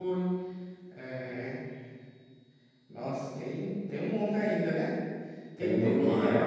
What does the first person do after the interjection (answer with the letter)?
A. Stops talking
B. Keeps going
A